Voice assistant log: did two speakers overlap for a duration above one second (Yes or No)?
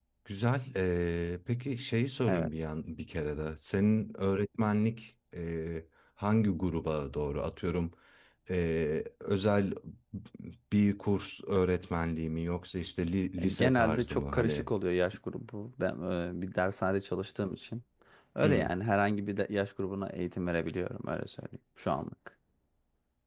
Yes